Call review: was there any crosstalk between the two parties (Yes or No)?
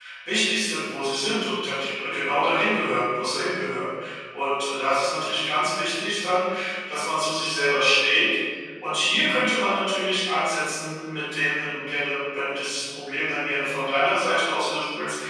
No